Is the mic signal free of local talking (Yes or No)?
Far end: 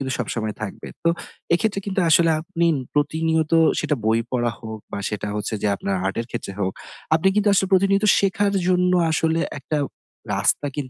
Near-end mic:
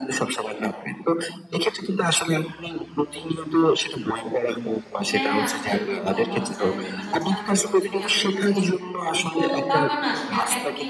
No